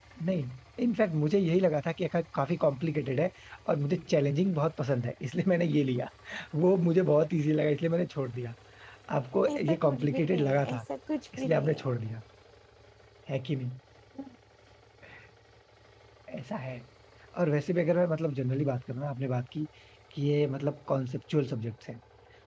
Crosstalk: present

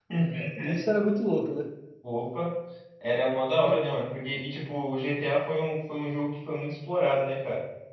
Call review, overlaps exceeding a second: none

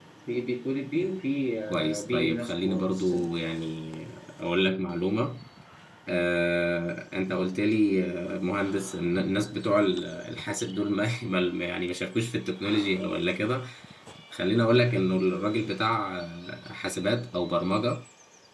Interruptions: present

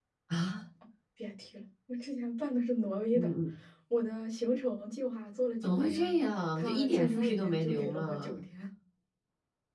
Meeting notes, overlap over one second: present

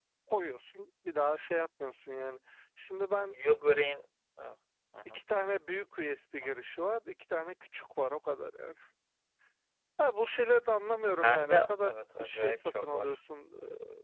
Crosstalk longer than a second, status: present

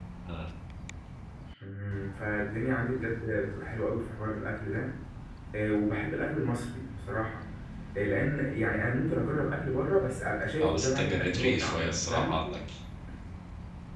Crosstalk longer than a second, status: present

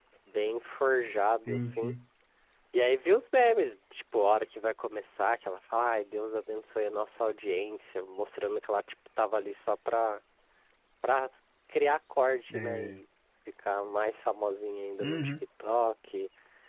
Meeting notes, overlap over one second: none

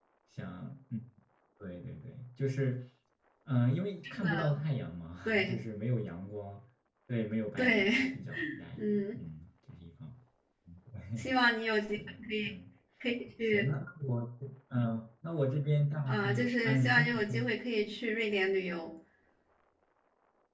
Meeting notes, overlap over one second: present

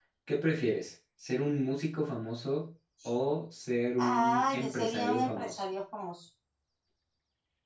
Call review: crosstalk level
present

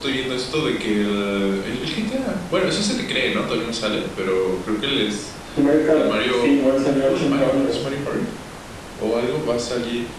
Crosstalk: present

